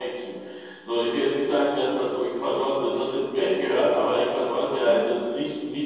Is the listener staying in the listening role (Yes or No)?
Yes